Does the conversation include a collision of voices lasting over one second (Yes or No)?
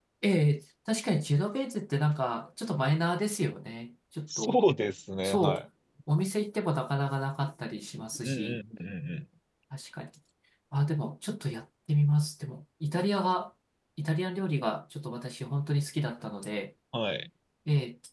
No